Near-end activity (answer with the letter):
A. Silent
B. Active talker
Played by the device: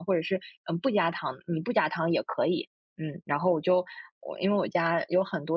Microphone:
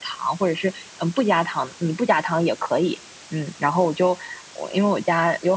A